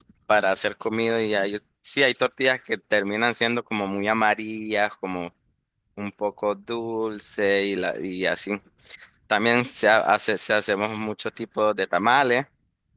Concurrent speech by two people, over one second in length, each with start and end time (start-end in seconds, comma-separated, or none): none